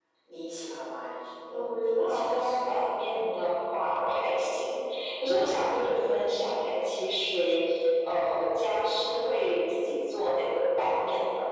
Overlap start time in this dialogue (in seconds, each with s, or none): 1.5 s